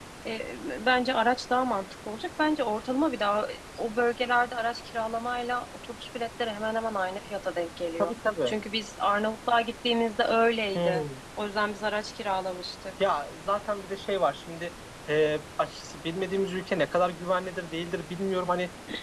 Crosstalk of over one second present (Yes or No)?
No